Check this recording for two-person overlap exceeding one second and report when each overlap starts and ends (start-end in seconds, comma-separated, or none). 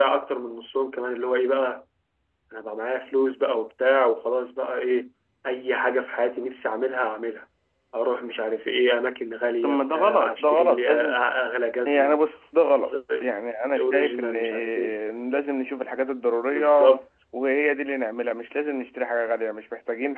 9.6-11.2, 13.8-15.0